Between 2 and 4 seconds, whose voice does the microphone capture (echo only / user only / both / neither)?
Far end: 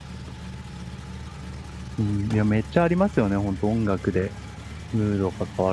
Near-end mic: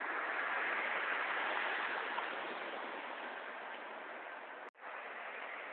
neither